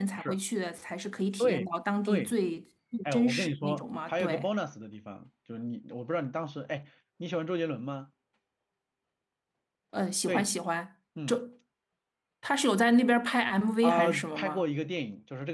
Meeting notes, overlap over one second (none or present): present